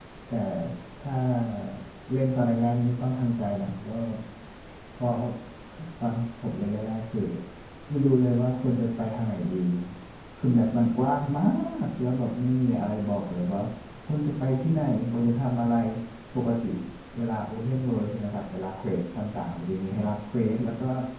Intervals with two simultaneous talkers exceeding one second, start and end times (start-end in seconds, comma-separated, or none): none